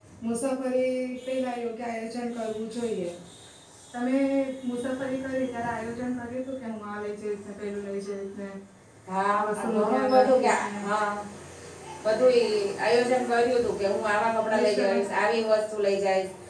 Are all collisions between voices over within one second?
No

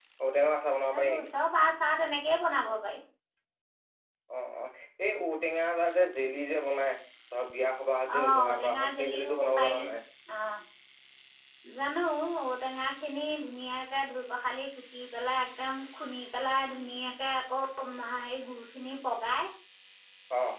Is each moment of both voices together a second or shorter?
No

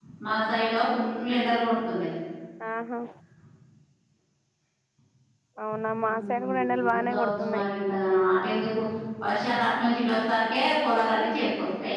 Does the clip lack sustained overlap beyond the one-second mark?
No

